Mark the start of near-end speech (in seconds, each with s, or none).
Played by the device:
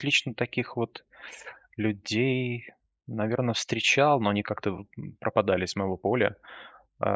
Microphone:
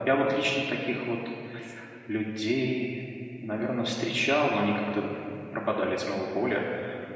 none